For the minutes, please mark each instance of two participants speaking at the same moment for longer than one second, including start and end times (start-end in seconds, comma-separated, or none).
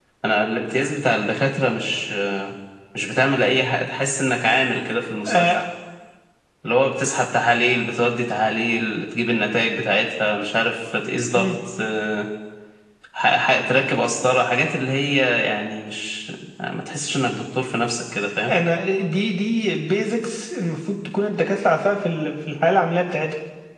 none